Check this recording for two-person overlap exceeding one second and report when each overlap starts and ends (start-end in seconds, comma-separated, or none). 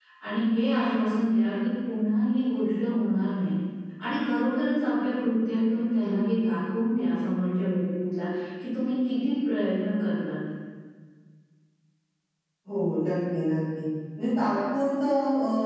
none